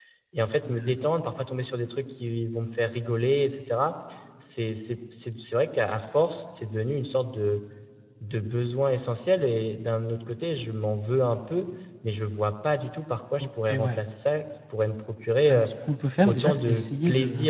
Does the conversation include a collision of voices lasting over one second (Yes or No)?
Yes